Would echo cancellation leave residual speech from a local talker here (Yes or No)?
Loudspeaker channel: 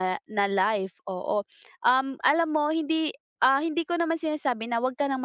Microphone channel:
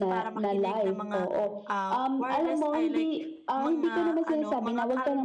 Yes